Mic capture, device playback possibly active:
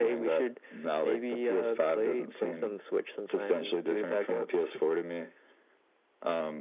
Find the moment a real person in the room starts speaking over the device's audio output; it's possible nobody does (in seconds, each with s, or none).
none